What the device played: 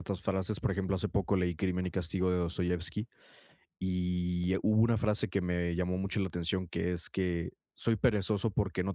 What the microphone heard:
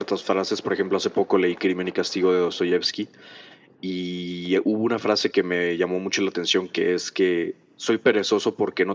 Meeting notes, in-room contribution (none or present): none